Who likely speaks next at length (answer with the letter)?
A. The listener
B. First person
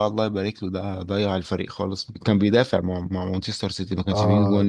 A